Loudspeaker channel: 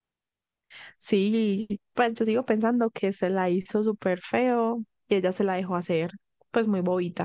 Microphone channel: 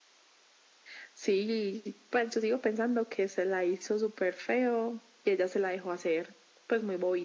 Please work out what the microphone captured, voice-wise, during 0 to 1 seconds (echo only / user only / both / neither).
neither